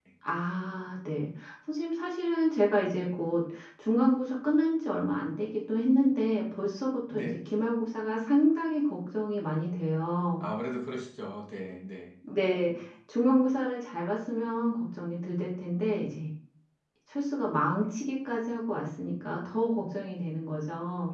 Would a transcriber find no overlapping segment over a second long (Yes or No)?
Yes